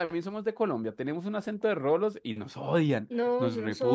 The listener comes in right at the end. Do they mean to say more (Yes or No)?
Yes